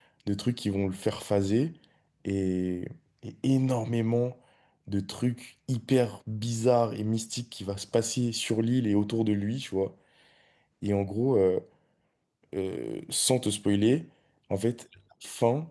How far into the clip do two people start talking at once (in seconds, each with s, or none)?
none